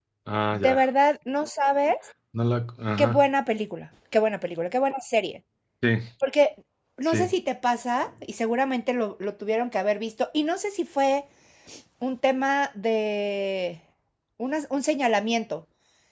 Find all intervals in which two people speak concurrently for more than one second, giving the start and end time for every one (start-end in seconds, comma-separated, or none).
none